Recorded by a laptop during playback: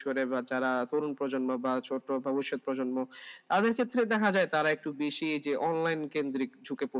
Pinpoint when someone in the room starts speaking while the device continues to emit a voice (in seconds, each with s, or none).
none